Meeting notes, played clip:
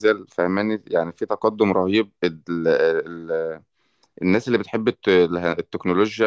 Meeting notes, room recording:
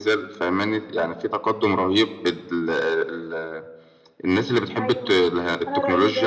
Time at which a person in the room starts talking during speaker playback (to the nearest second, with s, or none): 5 s